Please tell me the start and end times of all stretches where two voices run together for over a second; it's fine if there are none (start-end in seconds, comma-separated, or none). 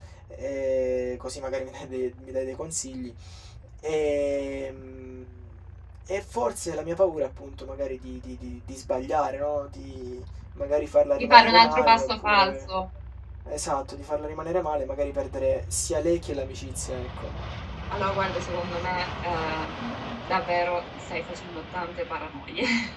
11.2-12.5